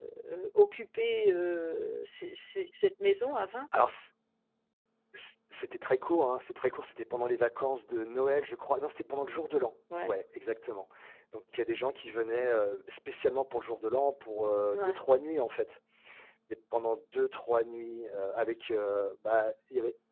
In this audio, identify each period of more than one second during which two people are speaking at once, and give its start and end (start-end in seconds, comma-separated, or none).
none